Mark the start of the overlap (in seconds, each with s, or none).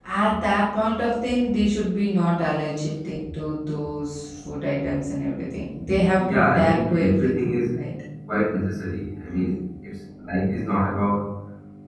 6.2 s